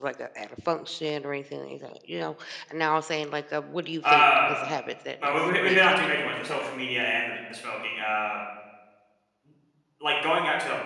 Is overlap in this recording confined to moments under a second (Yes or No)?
No